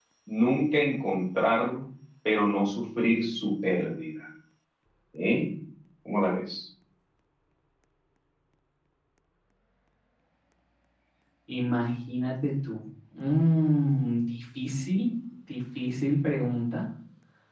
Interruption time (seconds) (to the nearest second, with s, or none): none